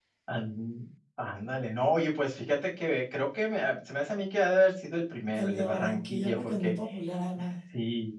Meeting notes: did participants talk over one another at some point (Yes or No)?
Yes